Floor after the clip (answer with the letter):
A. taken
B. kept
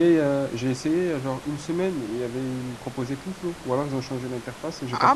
A